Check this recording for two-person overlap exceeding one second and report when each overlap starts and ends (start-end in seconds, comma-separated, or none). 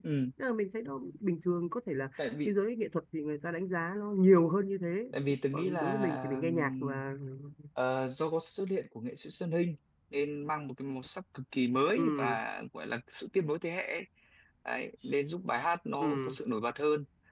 5.5-7.0